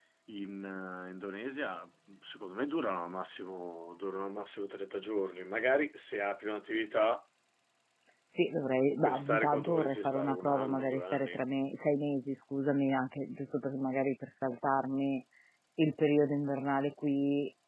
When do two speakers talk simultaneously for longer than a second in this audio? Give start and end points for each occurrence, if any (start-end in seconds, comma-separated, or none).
8.9-11.4